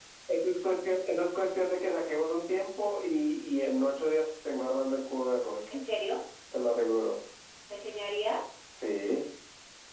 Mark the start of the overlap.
none

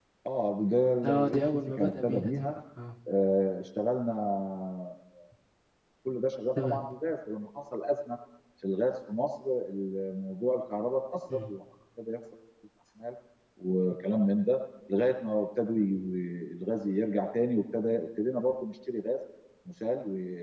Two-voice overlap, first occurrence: 1 s

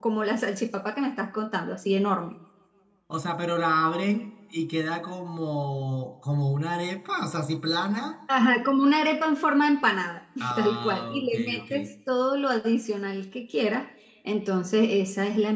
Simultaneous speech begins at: 10 s

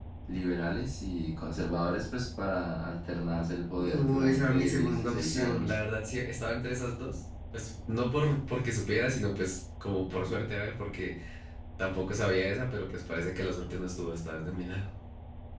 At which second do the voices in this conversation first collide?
4 s

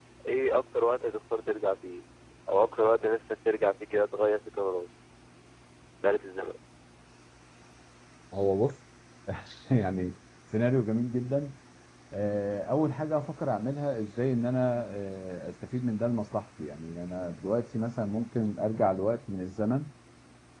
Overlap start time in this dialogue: none

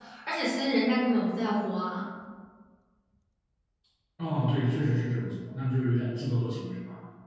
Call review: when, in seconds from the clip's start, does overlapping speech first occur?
none

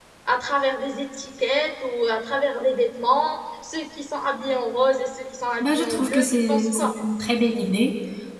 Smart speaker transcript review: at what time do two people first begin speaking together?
6 s

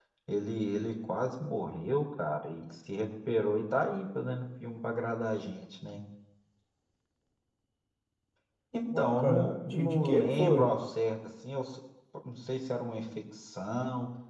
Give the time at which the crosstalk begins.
9 s

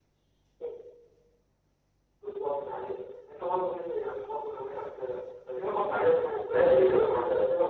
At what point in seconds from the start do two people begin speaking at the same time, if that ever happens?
6 s

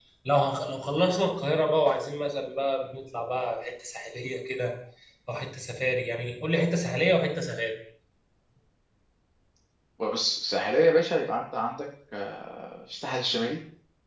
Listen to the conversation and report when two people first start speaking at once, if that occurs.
none

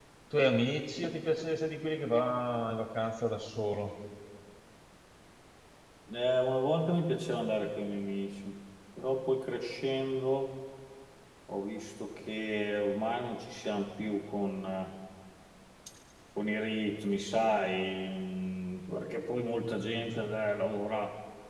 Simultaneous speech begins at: none

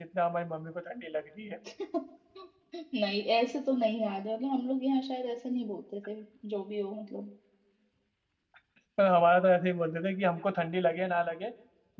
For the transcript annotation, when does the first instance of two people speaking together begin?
none

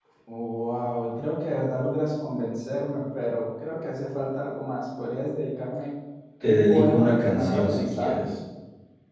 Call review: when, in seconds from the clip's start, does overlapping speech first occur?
6 s

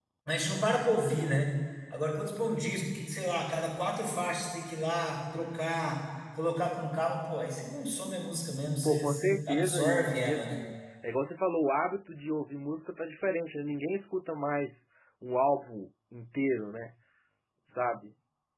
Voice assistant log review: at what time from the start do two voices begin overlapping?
9 s

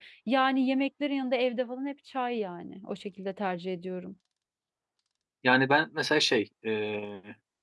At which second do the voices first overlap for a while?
none

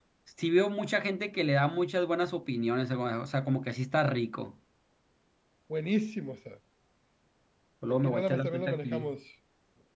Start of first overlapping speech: 8 s

